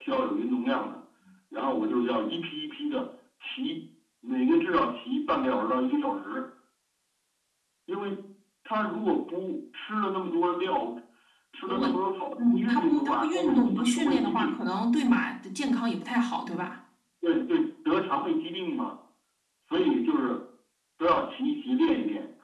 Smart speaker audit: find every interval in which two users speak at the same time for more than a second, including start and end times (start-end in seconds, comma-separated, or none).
12.4-14.6